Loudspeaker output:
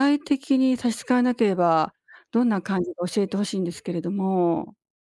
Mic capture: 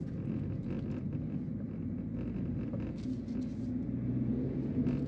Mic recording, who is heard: neither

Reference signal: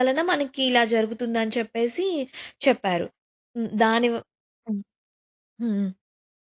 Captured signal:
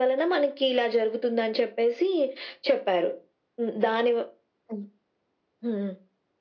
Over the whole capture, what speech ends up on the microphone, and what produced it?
echo only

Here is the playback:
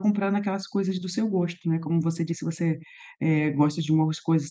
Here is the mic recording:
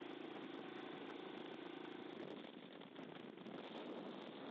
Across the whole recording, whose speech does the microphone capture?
neither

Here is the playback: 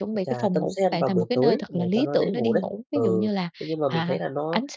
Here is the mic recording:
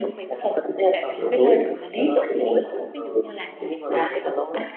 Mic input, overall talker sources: echo only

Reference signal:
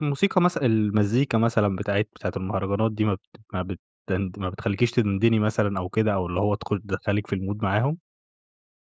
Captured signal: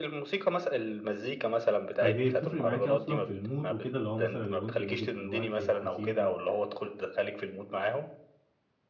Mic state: both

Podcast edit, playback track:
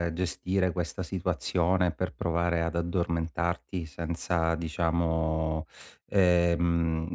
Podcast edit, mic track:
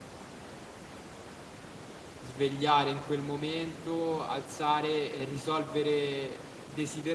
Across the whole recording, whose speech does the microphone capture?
user only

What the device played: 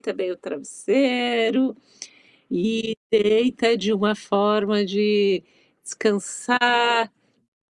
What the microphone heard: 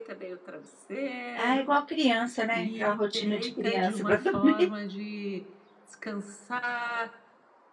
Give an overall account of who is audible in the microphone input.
both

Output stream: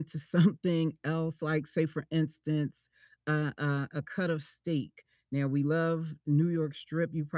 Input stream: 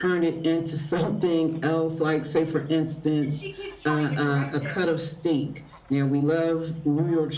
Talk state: both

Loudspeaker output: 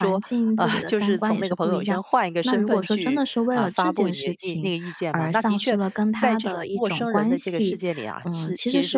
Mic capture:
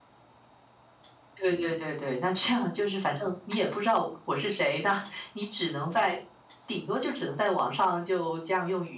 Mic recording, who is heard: user only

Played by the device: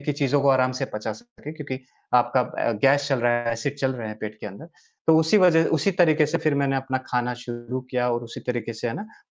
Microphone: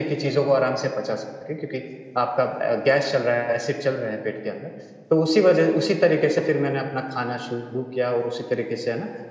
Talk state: echo only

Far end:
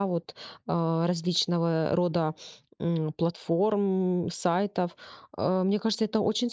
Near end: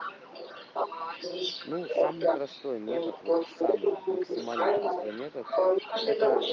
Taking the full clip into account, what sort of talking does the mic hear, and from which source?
both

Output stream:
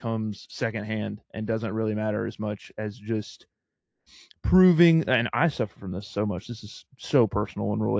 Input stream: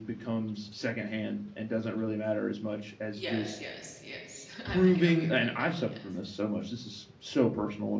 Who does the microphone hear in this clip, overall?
both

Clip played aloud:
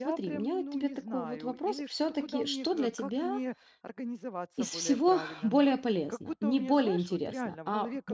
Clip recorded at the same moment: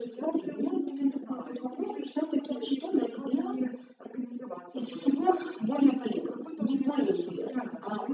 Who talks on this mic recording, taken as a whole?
echo only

